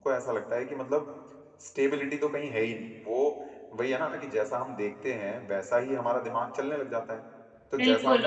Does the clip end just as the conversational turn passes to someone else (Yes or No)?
Yes